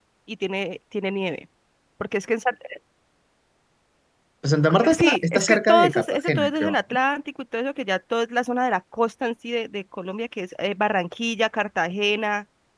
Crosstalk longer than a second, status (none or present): present